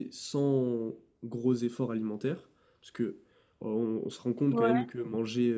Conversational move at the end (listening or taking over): listening